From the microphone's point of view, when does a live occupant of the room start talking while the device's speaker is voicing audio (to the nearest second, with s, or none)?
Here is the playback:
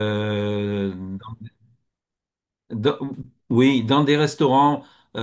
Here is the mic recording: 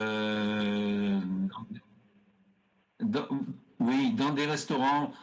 none